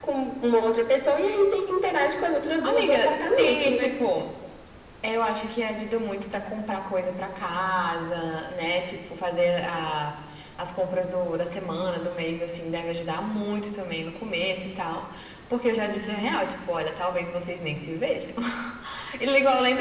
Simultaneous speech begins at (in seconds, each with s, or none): 2.6 s